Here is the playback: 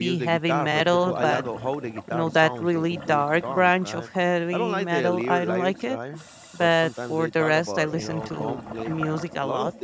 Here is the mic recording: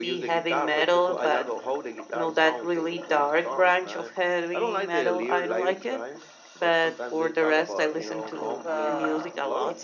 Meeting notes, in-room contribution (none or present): present